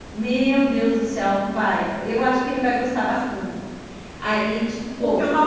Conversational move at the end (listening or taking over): taking over